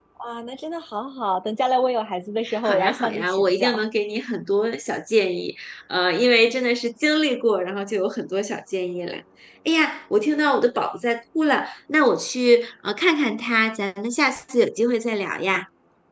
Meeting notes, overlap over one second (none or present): present